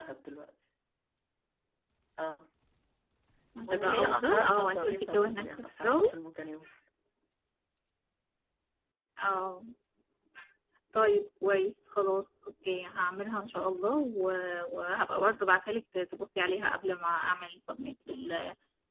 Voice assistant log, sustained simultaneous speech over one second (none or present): present